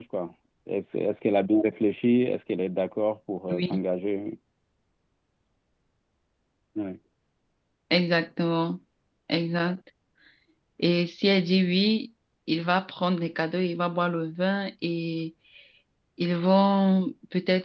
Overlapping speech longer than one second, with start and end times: none

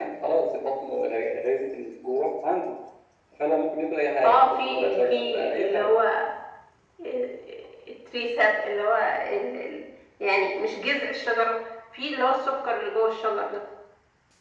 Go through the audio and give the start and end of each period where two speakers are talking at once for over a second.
4.2-6.0

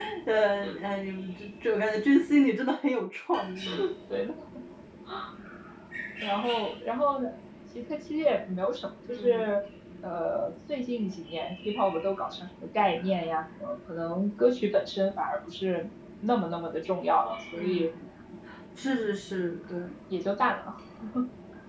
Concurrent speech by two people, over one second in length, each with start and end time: none

